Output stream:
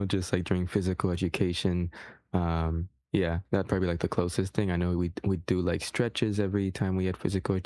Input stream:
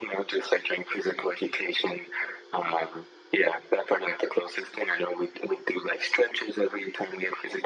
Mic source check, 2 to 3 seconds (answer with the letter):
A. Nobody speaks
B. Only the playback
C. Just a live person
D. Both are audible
B